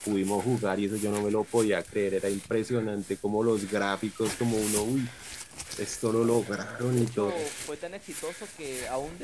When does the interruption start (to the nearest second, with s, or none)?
6 s